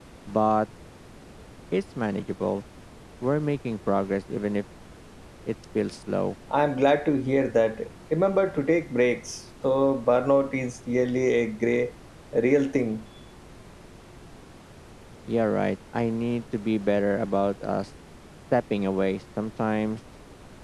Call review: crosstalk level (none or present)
none